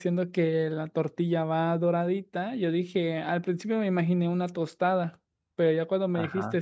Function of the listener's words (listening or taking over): listening